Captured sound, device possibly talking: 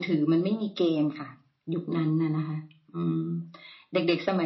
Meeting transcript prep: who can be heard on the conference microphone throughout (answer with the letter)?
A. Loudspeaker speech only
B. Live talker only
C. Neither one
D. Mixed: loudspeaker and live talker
A